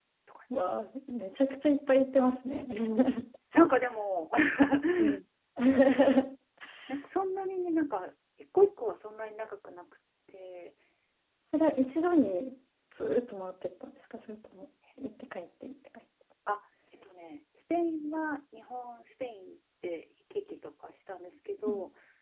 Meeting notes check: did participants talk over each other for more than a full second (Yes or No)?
No